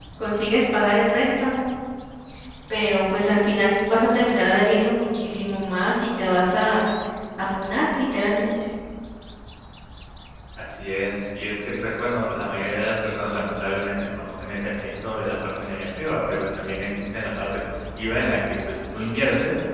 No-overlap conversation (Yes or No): Yes